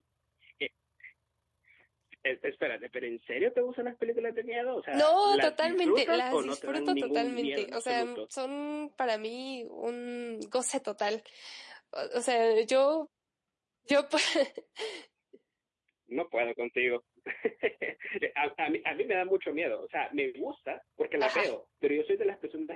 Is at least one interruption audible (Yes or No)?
Yes